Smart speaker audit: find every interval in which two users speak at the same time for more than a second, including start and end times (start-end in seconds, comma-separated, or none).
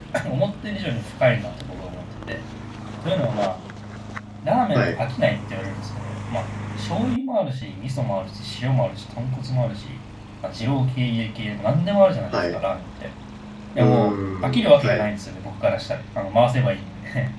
13.8-15.1